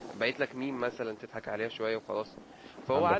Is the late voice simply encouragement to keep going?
Yes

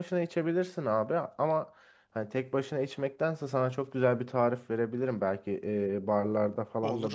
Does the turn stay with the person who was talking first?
Yes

